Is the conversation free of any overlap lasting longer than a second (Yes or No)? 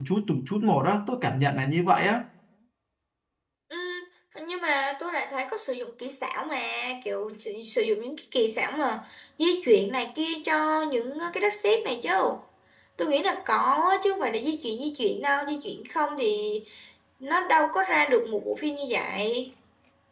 Yes